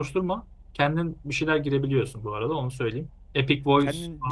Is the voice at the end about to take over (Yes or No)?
Yes